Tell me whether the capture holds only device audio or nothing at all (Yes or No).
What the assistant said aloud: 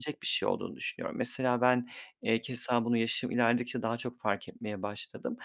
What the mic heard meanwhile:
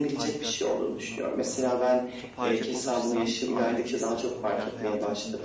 No